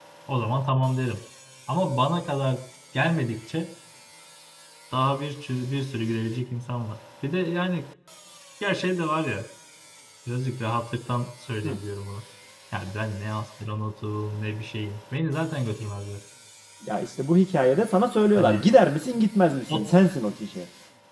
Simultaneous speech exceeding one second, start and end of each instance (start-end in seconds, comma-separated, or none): none